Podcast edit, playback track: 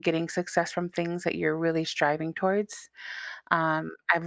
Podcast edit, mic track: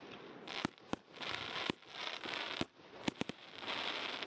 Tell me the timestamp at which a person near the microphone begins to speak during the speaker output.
none

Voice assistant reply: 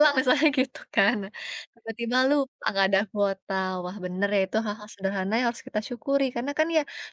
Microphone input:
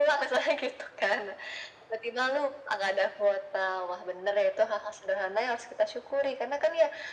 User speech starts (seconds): none

